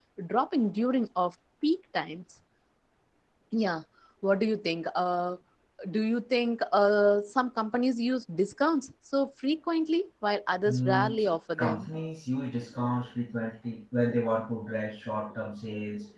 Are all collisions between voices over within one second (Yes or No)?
No